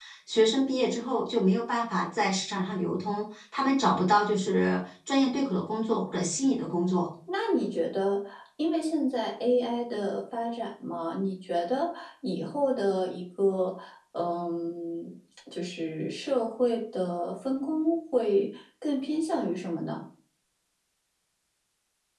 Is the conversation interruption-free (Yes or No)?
Yes